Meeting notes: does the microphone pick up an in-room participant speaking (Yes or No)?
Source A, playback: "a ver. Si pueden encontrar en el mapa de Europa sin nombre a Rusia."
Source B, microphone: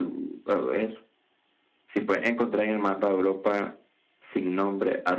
No